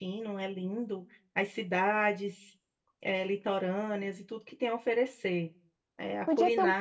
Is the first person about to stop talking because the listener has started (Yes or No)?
Yes